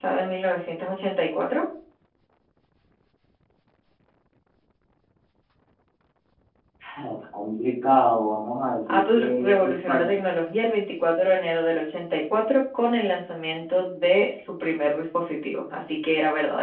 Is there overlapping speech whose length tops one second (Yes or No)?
Yes